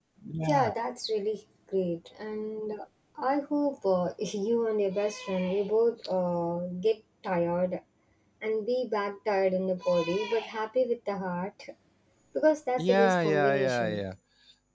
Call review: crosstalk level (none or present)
present